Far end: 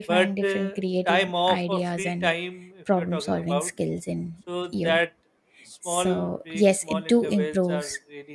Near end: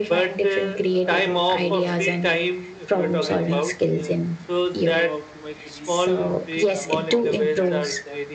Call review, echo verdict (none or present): present